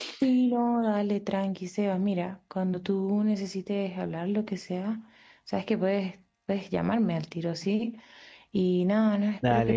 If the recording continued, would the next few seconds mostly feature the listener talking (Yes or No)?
No